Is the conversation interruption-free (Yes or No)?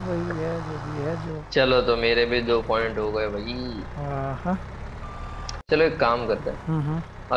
Yes